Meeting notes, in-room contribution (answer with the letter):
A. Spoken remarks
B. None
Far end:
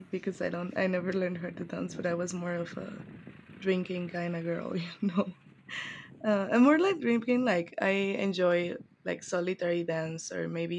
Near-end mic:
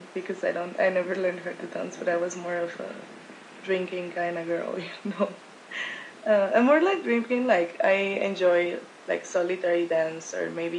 B